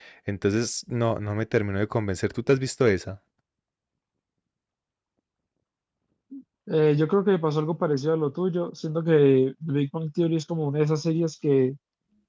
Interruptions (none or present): none